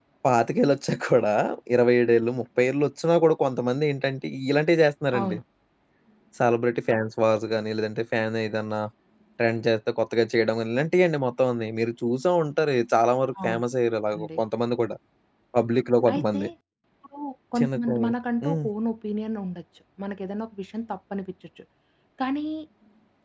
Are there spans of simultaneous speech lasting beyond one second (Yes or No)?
No